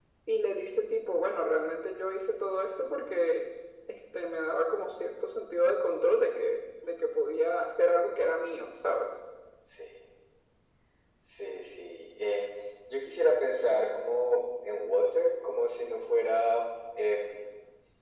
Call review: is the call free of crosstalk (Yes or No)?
Yes